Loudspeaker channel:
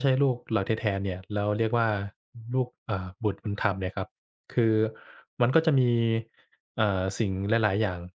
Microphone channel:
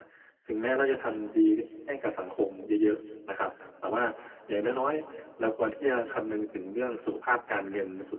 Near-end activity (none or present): present